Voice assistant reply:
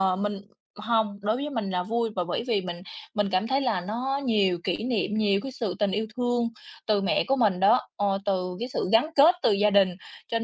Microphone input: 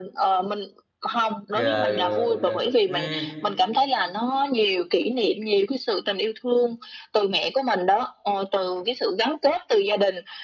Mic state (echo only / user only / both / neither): both